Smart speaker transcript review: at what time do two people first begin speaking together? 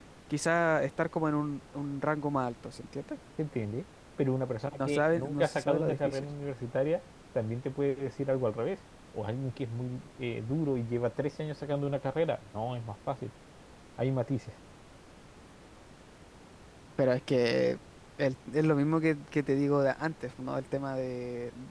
5 s

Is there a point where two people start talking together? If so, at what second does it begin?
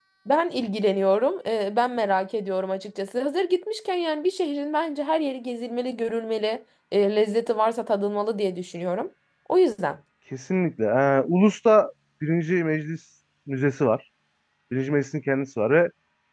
none

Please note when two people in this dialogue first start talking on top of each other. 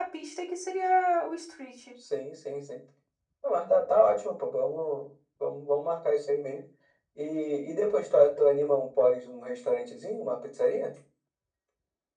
none

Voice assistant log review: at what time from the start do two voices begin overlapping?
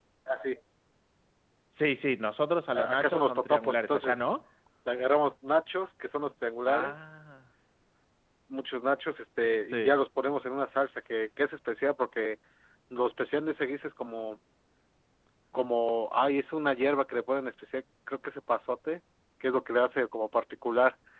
3 s

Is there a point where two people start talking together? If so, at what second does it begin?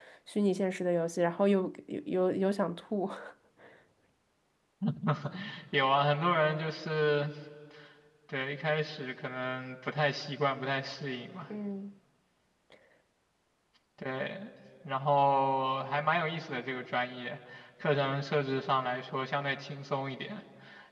none

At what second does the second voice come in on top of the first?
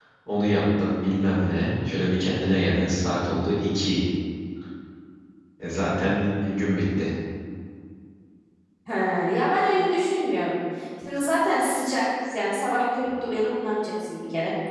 none

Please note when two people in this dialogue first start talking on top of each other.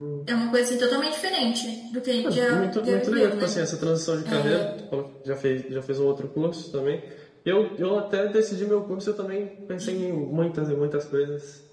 2 s

